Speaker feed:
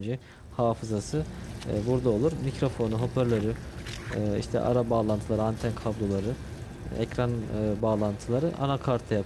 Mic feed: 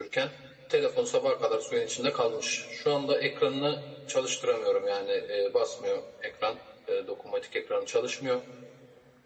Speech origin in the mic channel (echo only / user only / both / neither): user only